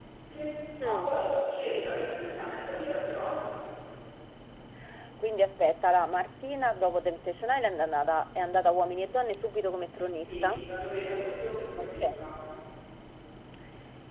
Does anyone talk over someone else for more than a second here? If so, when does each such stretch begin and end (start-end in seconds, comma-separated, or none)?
none